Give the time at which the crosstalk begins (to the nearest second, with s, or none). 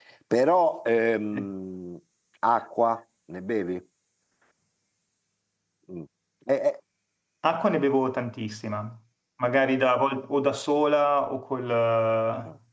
none